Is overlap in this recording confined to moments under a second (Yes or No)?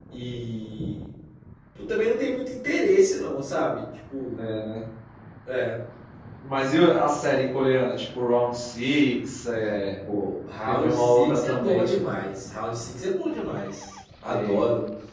No